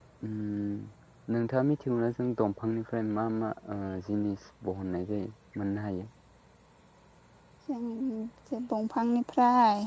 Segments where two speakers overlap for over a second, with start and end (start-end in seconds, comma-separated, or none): none